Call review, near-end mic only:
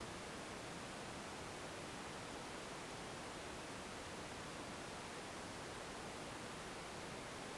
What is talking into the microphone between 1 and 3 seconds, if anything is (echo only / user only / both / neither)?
neither